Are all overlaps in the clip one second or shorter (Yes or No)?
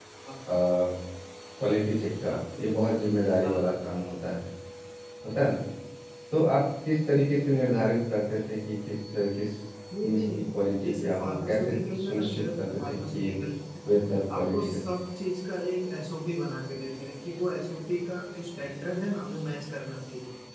No